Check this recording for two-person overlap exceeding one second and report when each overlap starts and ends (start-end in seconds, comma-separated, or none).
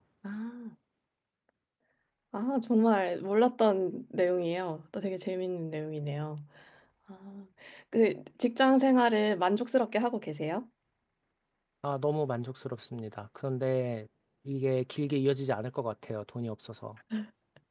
none